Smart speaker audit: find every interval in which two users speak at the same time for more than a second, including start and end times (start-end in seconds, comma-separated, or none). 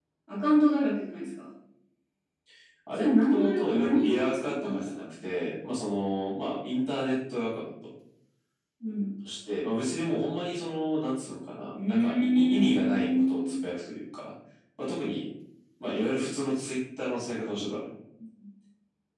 2.9-5.0, 11.8-13.6